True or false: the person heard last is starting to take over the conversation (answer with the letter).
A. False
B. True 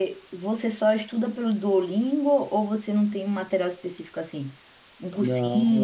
B